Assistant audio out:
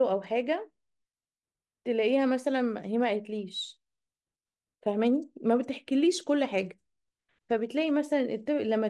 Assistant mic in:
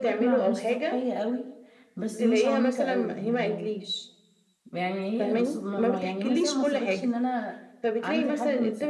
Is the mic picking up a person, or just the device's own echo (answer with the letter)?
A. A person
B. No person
A